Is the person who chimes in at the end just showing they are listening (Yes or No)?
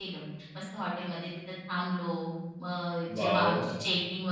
Yes